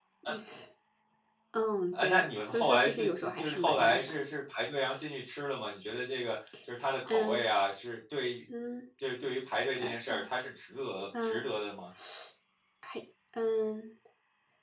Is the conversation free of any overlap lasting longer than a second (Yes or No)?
No